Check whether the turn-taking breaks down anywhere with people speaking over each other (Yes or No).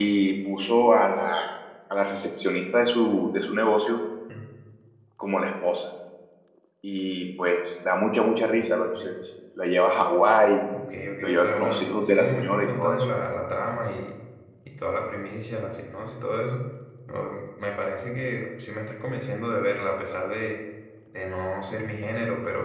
Yes